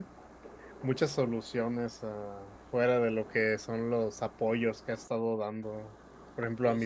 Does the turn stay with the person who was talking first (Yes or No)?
Yes